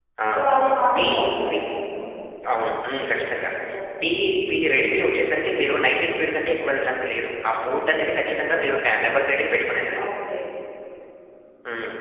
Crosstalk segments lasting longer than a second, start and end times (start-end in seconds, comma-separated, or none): none